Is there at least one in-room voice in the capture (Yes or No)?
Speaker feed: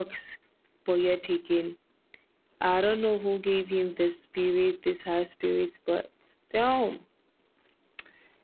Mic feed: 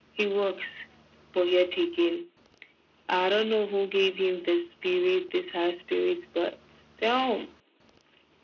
No